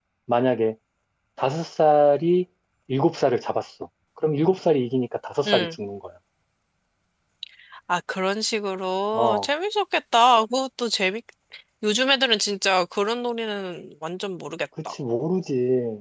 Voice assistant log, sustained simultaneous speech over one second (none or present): none